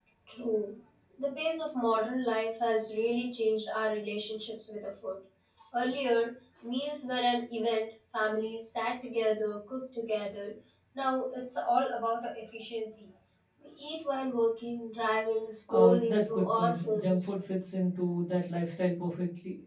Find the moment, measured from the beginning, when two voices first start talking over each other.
15.7 s

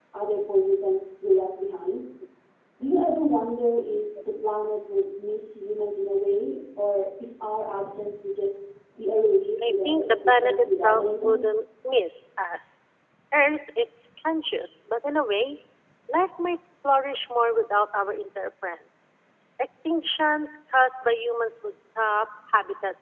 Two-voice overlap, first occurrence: 9.6 s

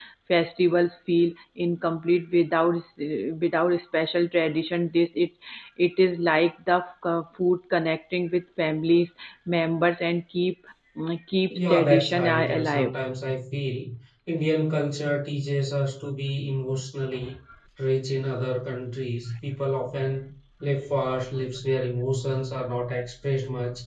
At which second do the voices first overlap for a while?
11.5 s

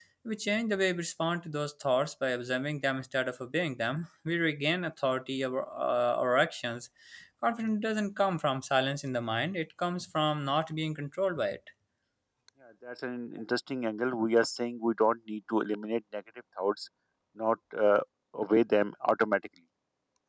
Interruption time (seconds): none

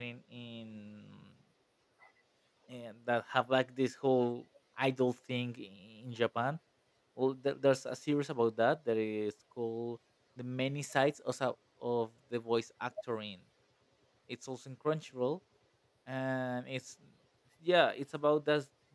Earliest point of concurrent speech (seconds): none

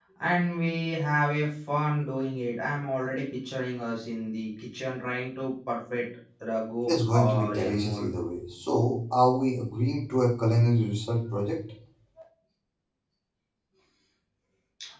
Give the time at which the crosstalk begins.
6.9 s

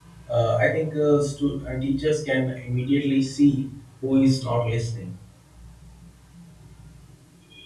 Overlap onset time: none

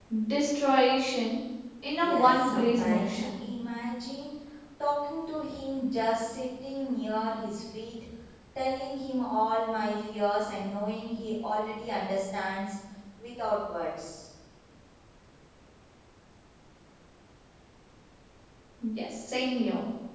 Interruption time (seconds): 2.0 s

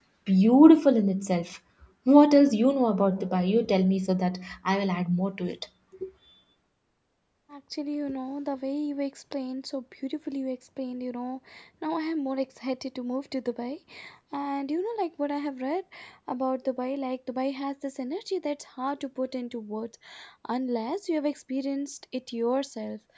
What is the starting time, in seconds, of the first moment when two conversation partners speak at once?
none

